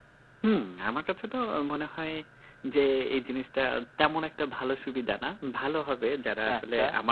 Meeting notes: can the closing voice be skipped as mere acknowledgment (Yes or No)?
Yes